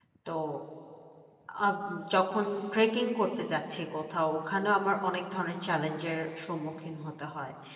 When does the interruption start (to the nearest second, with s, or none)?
none